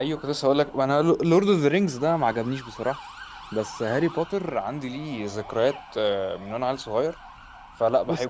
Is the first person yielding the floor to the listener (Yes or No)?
Yes